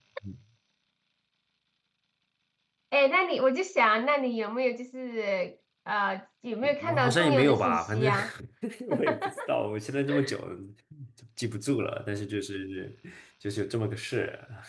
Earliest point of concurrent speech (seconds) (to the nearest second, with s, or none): 7 s